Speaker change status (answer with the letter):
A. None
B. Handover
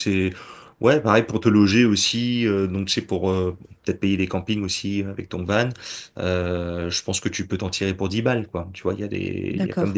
A